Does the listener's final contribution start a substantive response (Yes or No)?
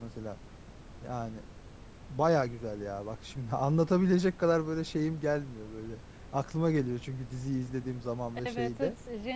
Yes